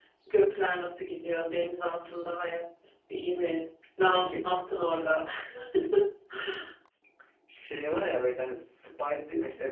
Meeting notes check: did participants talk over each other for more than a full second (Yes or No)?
No